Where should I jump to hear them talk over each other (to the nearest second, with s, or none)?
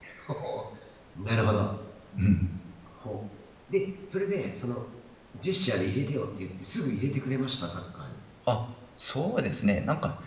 none